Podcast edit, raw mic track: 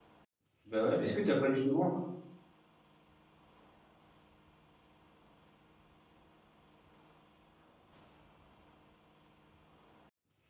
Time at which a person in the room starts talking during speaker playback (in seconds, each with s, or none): 0.6 s